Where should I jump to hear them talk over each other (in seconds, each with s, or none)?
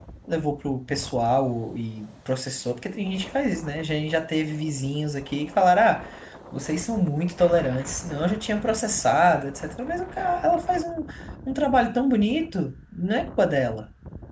none